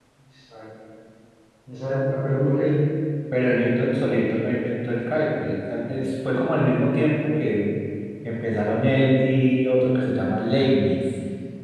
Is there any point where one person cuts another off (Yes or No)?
No